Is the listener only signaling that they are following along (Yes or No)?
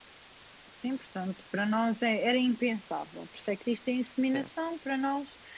Yes